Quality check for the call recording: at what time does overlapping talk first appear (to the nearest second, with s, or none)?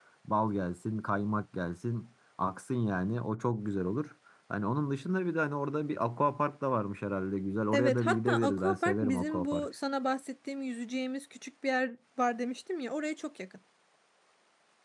8 s